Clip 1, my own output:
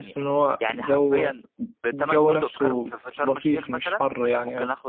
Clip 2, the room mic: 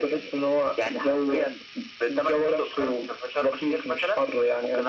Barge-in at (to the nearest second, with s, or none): none